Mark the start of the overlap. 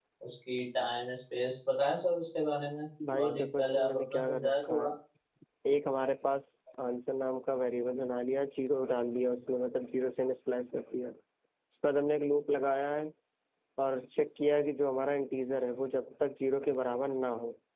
3.0 s

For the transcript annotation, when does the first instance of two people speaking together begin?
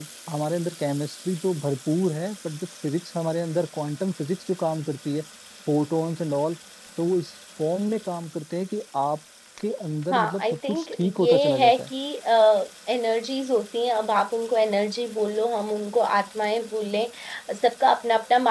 10.1 s

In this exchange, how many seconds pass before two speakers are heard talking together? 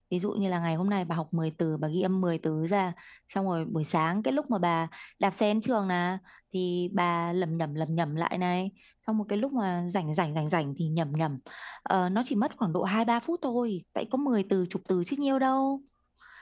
none

